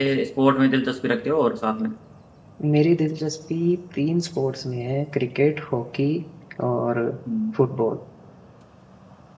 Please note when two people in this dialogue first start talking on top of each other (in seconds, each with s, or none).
none